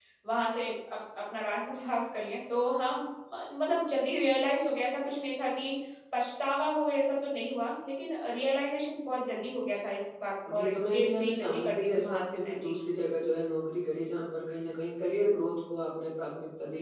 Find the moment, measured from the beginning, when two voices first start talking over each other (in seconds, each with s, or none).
10.4 s